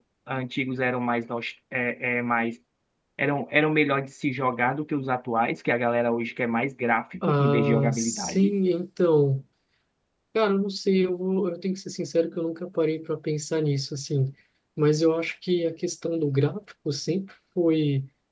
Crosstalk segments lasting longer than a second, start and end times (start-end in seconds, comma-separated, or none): 7.3-8.5